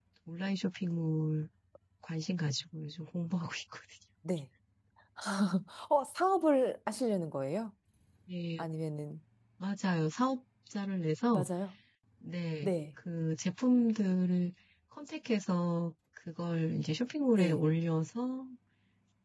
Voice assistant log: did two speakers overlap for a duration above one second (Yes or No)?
No